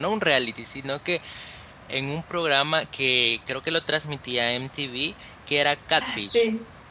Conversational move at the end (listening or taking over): taking over